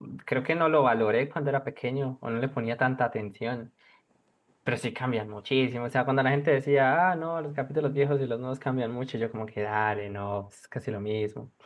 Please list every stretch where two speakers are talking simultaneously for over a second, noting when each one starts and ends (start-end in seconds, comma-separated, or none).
none